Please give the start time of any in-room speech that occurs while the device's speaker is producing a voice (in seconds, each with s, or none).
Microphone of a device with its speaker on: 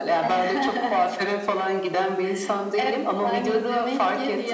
none